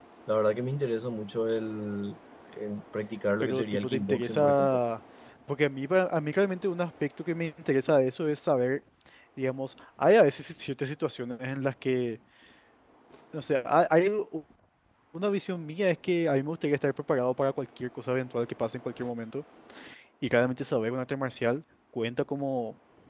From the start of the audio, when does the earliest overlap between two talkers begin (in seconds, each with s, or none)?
3.4 s